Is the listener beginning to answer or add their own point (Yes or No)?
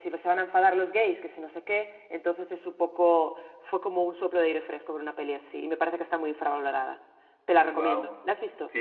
Yes